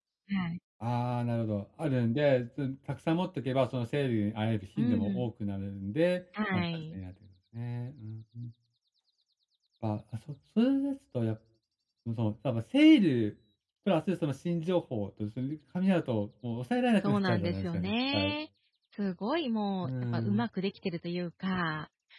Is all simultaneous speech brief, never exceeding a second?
No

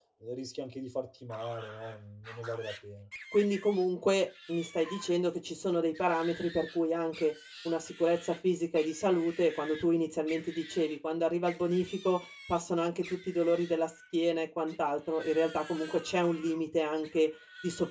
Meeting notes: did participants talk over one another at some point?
No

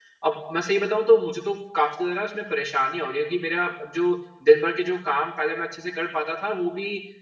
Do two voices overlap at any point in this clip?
No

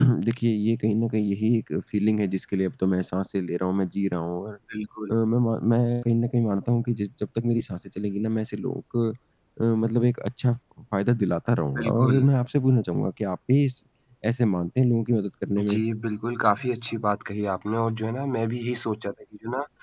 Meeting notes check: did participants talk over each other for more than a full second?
No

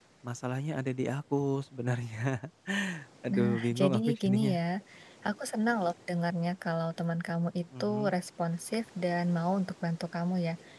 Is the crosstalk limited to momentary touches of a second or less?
No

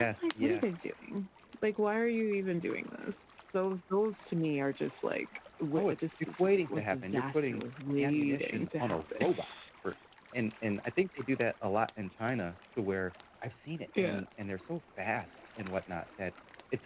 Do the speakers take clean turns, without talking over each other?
No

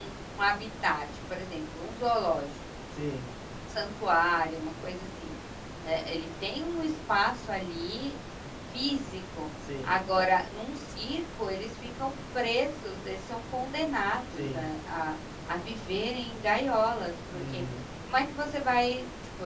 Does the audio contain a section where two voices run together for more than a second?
No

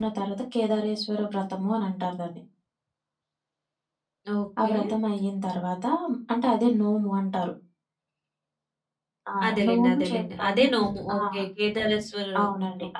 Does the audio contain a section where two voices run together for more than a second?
Yes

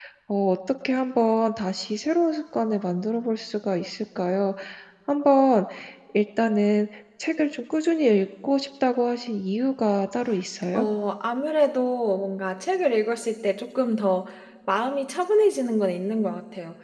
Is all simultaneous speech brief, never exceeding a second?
Yes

